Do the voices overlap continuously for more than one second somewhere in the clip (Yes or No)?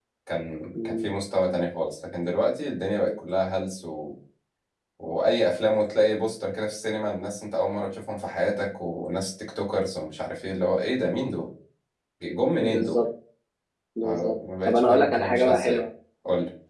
Yes